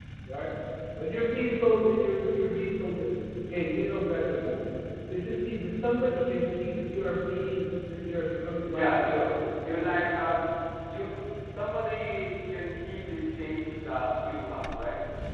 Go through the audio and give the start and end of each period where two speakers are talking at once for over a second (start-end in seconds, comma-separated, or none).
none